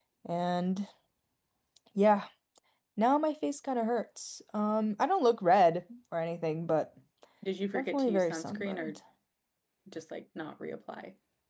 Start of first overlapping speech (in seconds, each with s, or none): 7.7 s